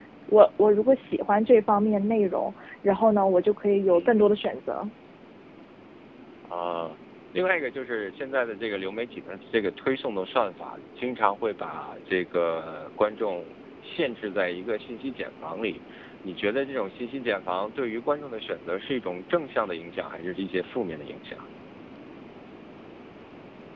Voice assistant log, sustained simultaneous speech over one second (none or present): none